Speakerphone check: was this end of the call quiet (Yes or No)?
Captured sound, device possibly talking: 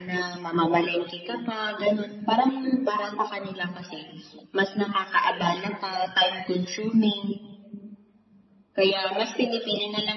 Yes